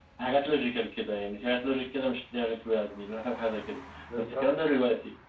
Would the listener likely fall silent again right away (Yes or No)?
Yes